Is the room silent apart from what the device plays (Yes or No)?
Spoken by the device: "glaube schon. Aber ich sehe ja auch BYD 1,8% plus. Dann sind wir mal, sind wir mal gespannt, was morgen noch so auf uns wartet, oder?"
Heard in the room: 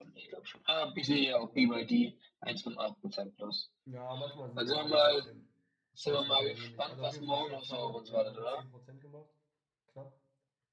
No